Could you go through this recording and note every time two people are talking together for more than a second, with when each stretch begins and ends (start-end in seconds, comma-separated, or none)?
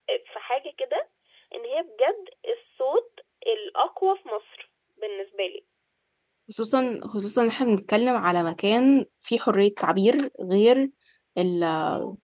none